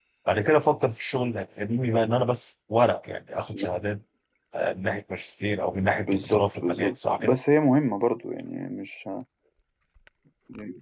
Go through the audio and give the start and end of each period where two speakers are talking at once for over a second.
5.9-7.4

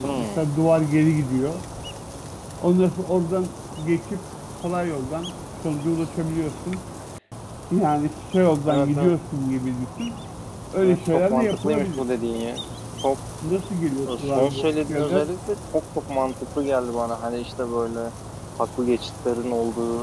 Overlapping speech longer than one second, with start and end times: 10.8-12.0, 14.1-15.3

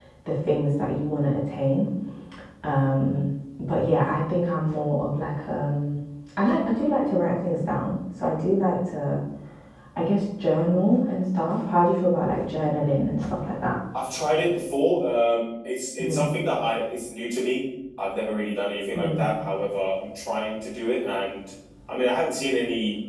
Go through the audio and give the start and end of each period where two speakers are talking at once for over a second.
none

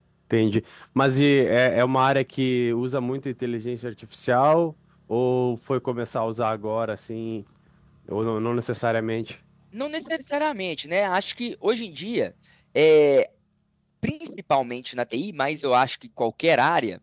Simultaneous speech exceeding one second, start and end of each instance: none

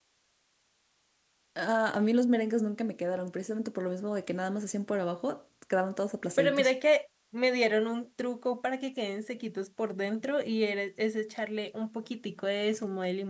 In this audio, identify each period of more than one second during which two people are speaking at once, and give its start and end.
none

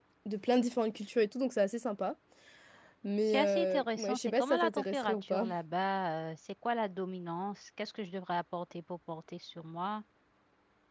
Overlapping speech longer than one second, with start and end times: 3.3-5.4

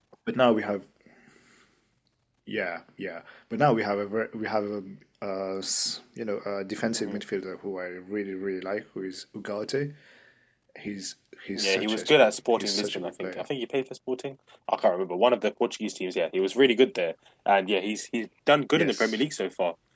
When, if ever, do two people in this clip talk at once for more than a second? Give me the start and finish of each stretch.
11.6-13.4

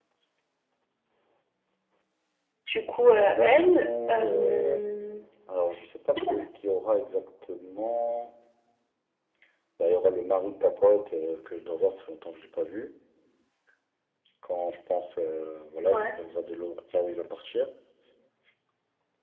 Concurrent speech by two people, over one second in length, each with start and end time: 3.1-4.8

